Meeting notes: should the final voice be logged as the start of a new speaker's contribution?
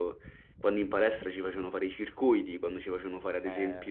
No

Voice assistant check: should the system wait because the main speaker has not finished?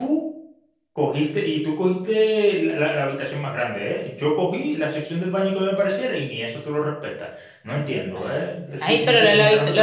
No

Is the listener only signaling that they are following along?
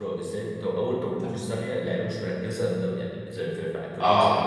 No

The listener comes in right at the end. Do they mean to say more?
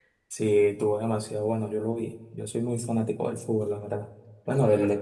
No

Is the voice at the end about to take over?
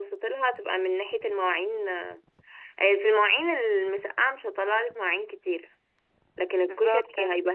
No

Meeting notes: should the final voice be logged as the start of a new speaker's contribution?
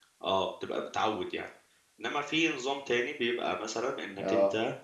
No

